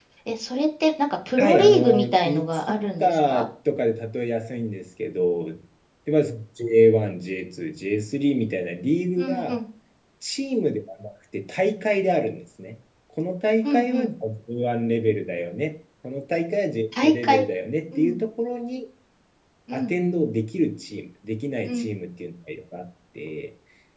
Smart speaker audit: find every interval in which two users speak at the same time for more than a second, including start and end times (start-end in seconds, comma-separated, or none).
1.4-3.5